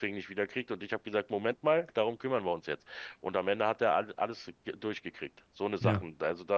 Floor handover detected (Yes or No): No